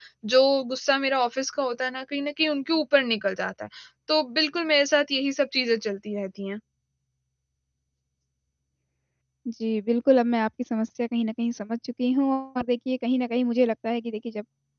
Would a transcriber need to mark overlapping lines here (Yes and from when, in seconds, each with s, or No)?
No